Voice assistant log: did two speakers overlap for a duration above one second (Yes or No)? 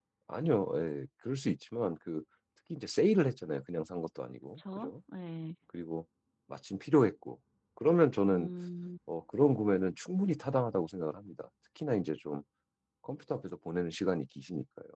No